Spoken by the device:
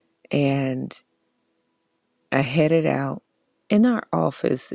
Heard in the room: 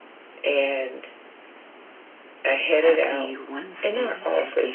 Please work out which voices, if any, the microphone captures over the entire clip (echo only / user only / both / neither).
both